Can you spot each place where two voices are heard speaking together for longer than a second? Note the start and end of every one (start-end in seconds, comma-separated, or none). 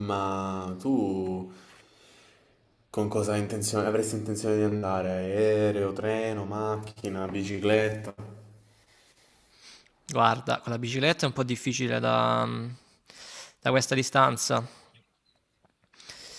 none